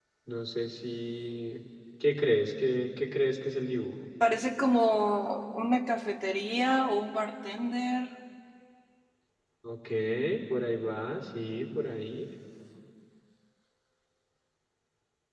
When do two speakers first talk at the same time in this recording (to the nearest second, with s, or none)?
none